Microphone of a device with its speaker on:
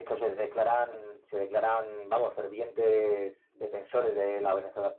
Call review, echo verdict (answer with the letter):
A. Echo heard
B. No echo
A